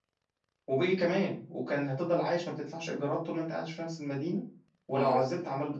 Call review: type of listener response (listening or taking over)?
listening